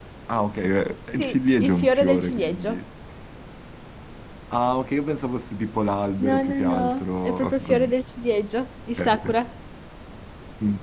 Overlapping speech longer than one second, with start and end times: 1.2-2.8, 6.2-7.9

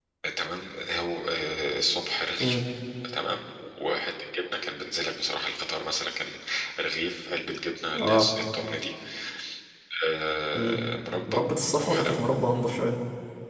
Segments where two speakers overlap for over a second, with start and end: none

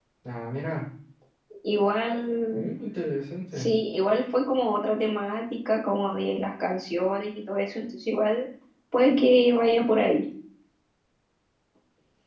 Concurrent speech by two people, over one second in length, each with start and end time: none

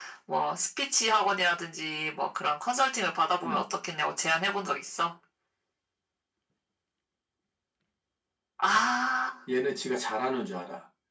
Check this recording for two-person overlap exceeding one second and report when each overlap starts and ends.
none

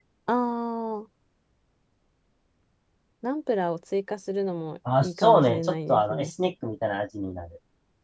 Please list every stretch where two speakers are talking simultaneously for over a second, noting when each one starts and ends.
5.0-6.3

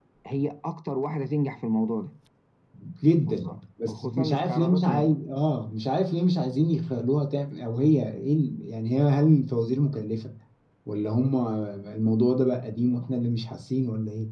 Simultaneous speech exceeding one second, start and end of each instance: 3.9-5.2

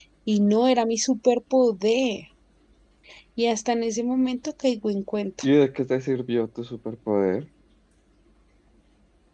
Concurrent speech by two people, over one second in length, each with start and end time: none

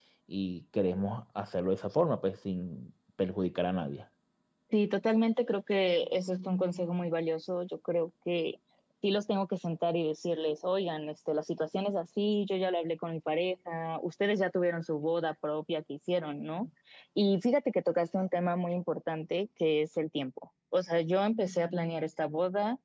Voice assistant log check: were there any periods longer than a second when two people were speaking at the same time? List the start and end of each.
none

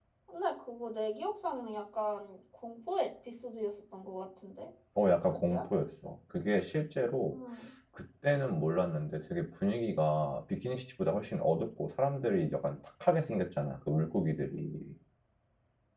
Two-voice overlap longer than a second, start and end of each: none

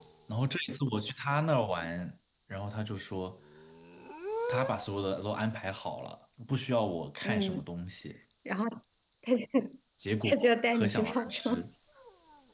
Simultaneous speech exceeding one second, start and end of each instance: 10.2-11.6

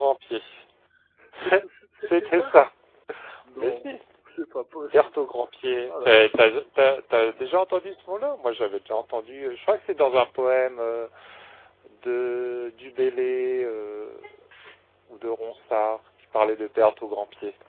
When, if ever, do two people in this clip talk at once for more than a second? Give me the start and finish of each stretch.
none

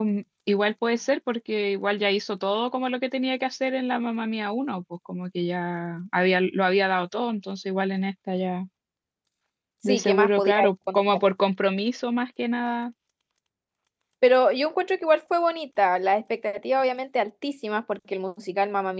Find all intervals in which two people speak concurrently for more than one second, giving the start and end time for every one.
9.9-11.2

